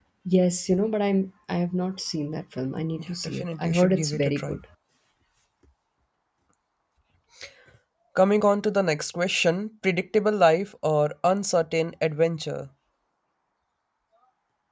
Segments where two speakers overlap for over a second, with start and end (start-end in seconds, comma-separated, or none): 3.0-4.6